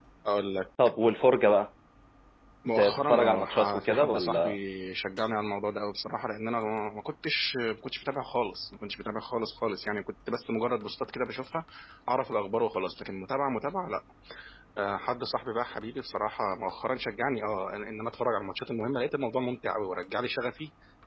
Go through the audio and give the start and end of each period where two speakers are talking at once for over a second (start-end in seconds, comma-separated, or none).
2.8-4.5